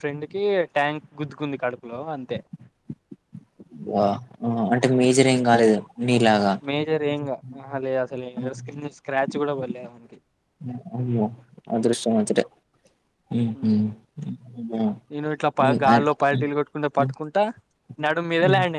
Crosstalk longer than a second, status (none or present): none